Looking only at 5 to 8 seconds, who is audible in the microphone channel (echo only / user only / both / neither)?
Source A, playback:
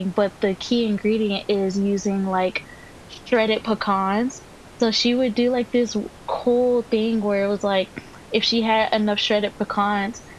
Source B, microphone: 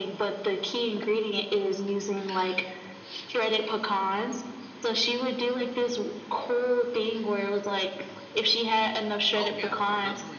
echo only